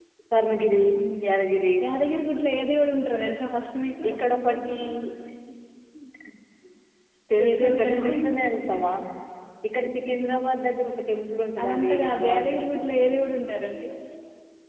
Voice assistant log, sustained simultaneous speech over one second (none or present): present